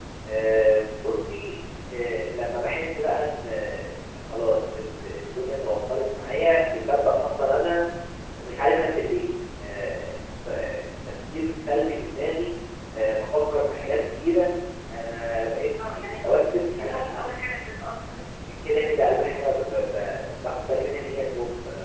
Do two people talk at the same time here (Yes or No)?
Yes